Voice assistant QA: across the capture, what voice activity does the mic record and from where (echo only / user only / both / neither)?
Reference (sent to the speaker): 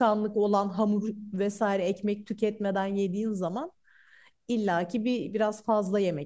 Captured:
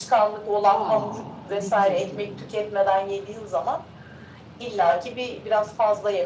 both